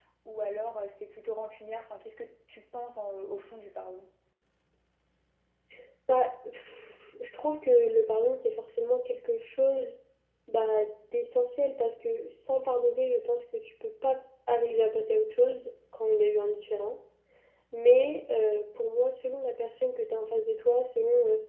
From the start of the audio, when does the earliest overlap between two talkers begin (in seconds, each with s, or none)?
none